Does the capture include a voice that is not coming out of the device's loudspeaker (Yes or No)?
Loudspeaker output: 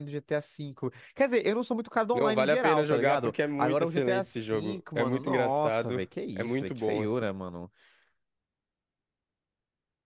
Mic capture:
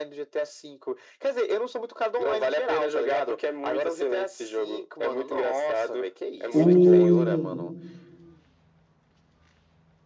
Yes